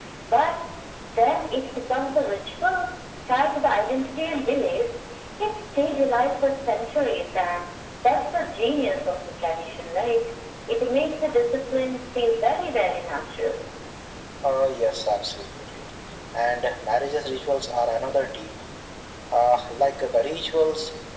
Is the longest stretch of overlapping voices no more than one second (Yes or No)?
Yes